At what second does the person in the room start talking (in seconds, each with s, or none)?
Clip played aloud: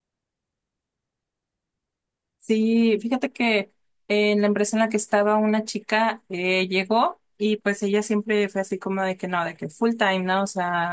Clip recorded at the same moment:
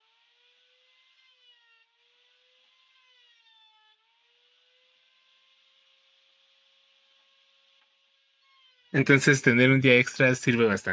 8.9 s